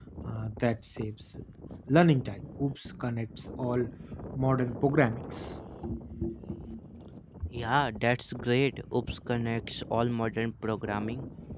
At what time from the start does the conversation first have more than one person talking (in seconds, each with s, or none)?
none